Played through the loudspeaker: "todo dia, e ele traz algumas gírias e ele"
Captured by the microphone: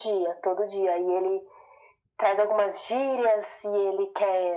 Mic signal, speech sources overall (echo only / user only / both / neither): echo only